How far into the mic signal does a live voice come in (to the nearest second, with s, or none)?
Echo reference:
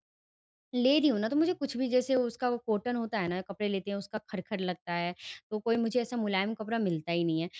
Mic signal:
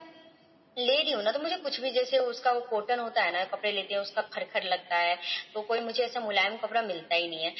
none